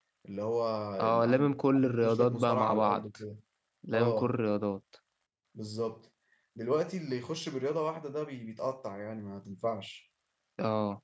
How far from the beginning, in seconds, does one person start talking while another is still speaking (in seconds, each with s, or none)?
1.0 s